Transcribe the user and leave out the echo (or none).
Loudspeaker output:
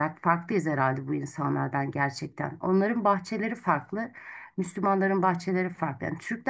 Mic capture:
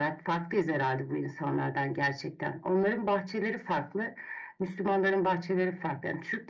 none